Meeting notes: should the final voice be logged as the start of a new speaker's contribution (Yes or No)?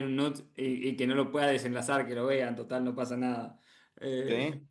No